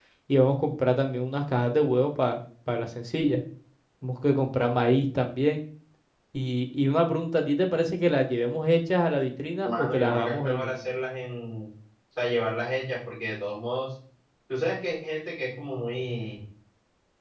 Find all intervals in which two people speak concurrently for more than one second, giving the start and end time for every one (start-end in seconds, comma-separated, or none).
9.7-10.8